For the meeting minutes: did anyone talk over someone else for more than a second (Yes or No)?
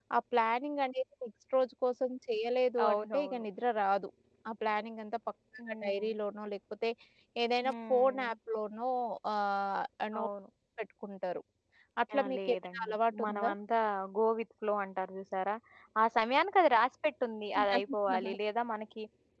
Yes